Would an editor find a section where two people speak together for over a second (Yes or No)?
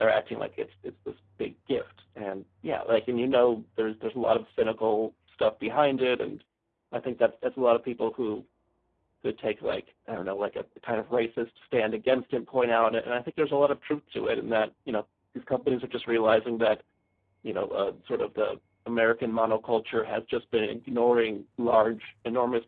No